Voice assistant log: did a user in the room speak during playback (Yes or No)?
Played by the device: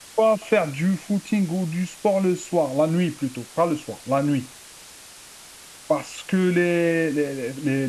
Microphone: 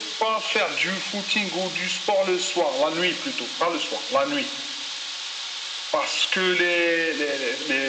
No